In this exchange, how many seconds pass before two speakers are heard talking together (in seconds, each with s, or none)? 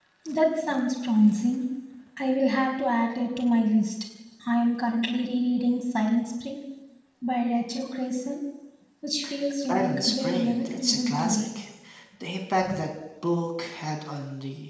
9.6 s